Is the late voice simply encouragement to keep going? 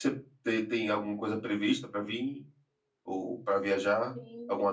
No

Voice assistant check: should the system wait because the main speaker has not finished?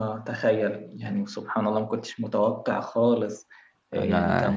Yes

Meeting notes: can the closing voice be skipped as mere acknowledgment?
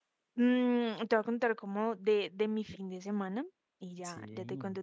Yes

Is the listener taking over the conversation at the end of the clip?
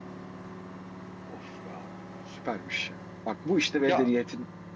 No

